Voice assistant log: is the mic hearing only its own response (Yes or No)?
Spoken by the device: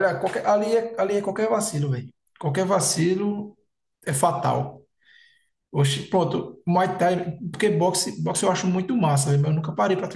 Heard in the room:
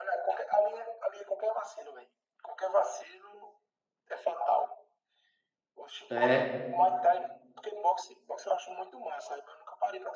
No